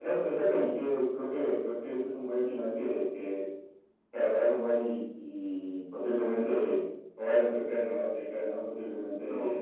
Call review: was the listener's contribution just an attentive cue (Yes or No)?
Yes